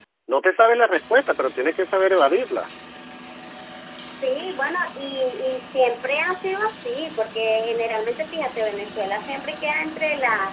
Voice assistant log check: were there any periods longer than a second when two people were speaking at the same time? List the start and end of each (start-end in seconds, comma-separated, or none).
none